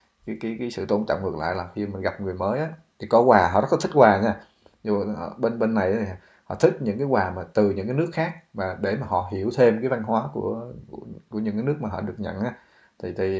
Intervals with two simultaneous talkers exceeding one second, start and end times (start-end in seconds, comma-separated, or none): none